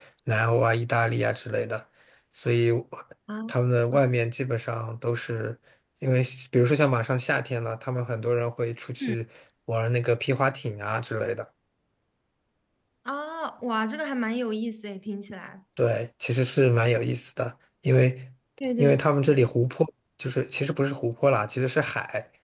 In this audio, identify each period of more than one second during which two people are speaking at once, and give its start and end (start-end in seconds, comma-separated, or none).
none